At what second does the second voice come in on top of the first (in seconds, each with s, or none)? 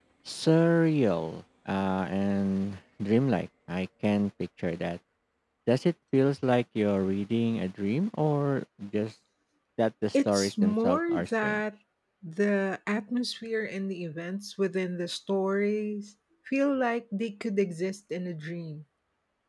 10.1 s